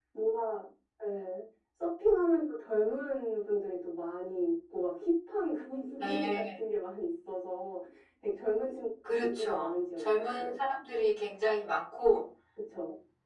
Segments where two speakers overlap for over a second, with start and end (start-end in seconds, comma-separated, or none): 9.2-10.5